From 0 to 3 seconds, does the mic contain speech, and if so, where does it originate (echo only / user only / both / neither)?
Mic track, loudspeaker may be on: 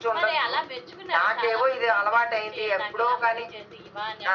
echo only